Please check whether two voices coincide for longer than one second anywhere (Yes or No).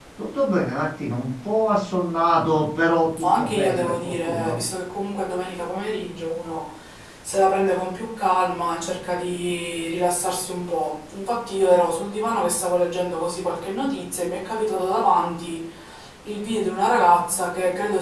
Yes